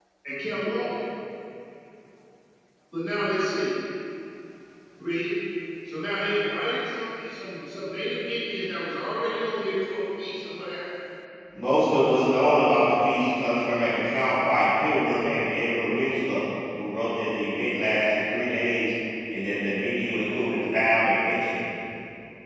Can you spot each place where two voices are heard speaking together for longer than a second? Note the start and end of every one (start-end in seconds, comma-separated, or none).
none